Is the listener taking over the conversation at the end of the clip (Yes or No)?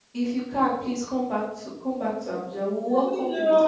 Yes